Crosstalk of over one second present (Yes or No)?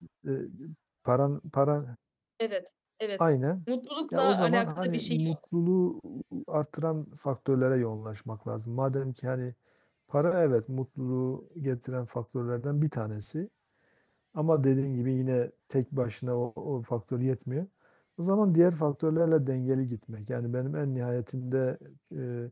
Yes